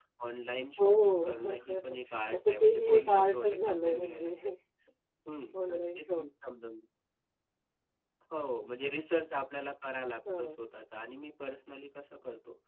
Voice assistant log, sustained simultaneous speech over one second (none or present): present